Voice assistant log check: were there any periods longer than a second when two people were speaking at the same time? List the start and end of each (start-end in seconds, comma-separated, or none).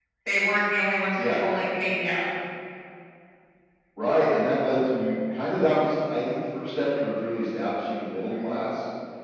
none